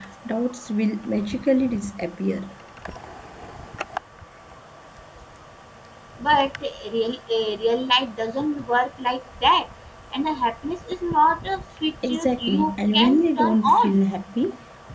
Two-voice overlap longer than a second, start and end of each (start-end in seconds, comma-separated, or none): 12.1-14.0